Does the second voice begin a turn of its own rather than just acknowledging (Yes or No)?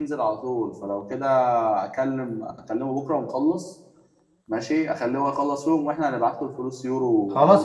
Yes